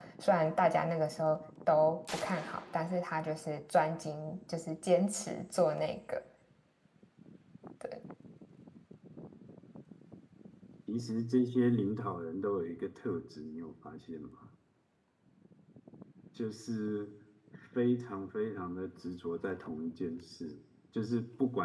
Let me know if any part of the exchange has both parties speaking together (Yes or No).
No